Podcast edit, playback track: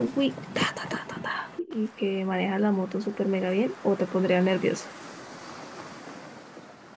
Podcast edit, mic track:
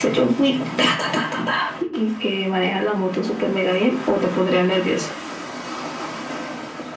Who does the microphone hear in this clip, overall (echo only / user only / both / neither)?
echo only